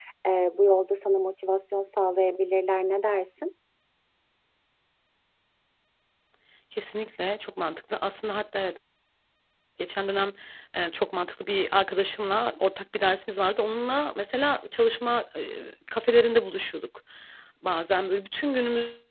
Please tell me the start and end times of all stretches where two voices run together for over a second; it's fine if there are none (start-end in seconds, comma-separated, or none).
none